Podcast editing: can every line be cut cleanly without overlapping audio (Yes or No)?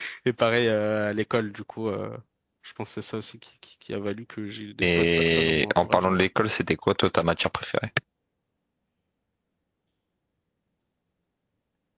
No